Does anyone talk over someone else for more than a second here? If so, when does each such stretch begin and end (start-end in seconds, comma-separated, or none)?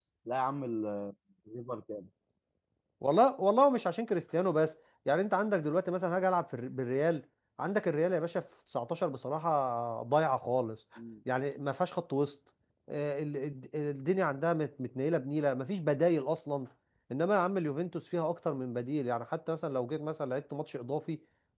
none